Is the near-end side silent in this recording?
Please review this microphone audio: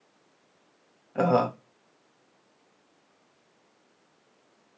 No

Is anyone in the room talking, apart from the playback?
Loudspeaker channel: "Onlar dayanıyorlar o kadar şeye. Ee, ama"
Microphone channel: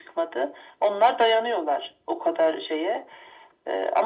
No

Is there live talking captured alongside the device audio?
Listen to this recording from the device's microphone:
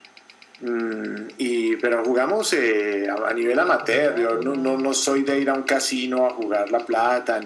Yes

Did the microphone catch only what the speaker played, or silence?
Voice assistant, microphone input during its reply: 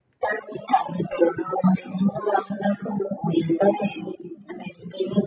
Yes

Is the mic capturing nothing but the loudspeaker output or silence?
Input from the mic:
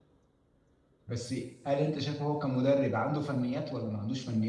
No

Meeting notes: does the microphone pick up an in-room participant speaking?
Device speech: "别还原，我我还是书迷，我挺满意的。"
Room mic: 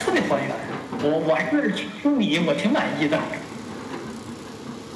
No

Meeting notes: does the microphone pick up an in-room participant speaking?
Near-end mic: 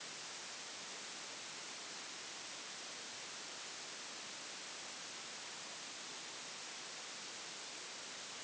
No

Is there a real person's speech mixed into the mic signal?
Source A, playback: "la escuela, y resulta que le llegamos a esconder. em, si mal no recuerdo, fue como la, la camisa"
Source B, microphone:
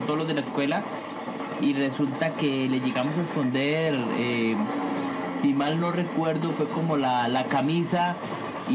No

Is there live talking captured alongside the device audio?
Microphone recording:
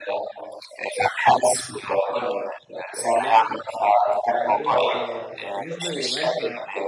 Yes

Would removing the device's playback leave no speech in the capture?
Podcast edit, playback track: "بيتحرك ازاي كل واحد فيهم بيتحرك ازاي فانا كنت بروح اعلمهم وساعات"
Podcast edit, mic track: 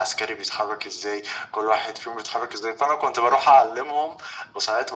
Yes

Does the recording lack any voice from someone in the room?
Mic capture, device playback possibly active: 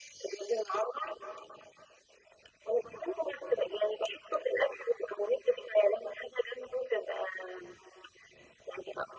Yes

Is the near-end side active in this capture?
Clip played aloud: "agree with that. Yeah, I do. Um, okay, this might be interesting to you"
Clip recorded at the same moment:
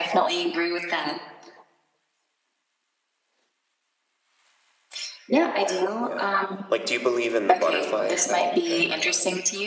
Yes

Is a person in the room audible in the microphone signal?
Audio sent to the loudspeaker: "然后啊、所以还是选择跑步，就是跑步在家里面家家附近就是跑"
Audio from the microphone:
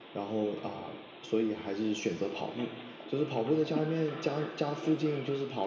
No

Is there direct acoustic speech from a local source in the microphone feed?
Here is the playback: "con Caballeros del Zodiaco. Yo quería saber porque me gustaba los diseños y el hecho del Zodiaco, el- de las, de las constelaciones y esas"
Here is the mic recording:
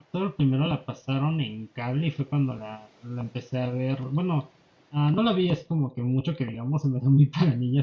Yes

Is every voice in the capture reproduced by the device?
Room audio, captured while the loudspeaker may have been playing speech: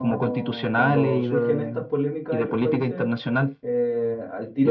No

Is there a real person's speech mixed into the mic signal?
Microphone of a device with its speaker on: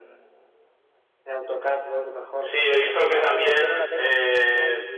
Yes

